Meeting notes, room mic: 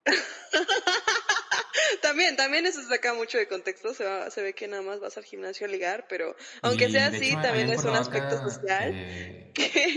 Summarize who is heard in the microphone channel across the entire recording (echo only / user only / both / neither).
both